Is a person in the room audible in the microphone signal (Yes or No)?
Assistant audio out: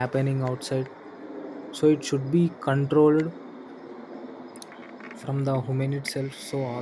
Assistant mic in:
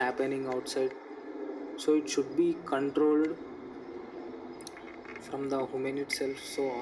No